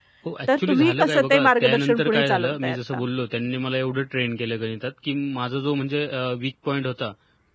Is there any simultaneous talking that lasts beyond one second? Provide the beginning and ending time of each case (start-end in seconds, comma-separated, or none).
0.6-3.0